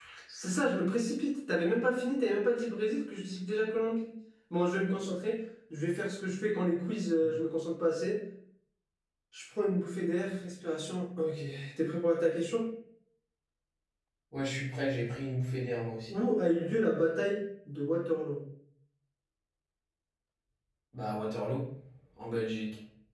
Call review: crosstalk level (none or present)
none